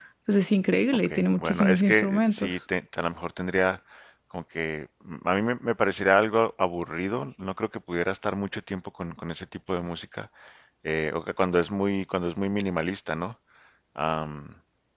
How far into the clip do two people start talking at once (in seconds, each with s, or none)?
1.1 s